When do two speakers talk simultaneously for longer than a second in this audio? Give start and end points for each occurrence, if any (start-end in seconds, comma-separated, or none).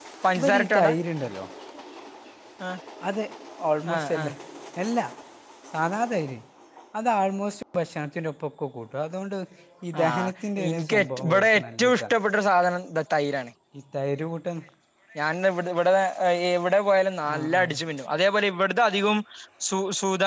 10.7-12.1